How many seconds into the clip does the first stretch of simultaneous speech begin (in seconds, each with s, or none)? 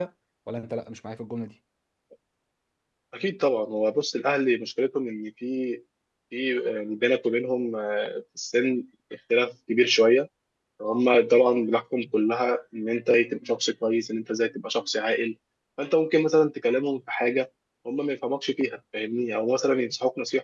none